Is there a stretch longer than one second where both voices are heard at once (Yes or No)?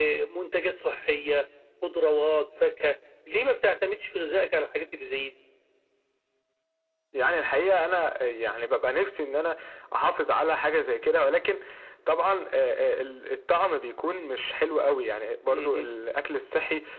No